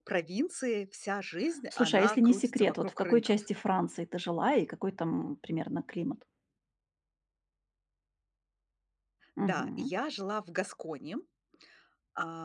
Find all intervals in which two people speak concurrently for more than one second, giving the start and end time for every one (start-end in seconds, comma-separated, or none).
1.8-3.3